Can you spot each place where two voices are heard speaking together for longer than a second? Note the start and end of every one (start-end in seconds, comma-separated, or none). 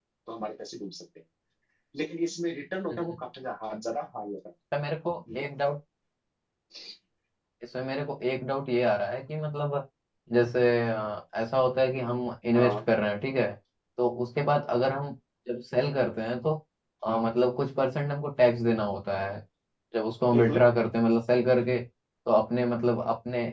none